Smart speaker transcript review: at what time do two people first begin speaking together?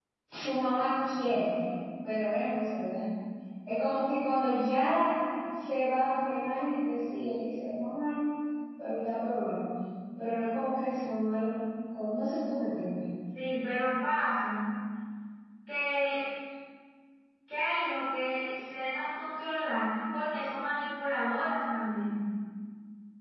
none

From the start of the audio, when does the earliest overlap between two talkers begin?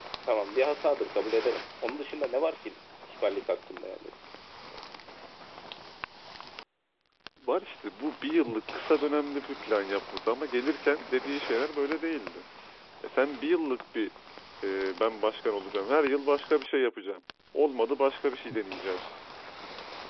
none

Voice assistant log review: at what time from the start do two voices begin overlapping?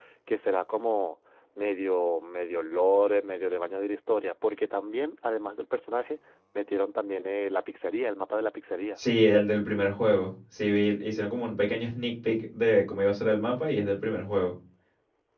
none

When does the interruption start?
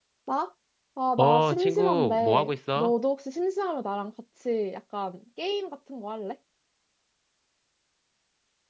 1.2 s

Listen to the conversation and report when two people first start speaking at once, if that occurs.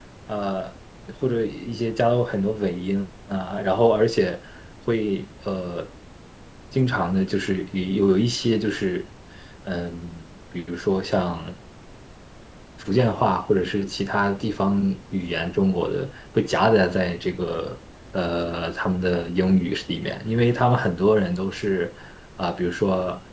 none

